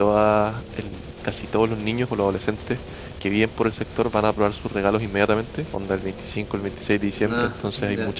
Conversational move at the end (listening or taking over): listening